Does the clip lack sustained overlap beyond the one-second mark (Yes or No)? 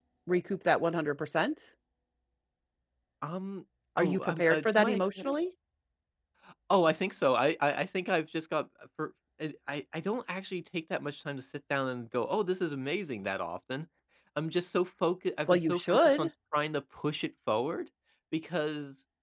No